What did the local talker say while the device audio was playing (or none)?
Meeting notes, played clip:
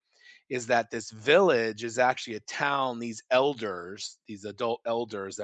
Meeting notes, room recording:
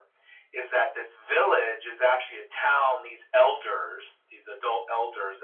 none